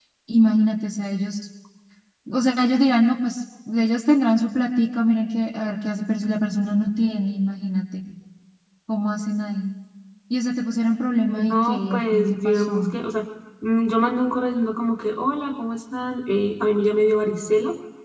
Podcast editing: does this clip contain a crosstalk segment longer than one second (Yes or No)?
Yes